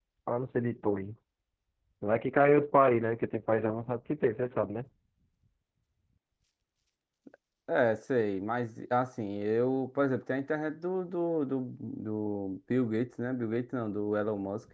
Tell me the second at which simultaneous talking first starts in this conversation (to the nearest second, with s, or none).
none